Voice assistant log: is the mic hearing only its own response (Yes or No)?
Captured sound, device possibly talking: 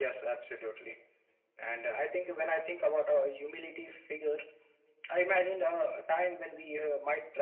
Yes